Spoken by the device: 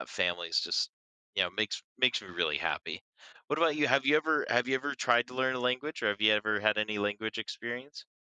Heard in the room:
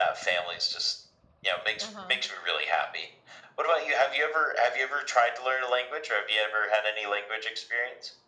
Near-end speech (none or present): present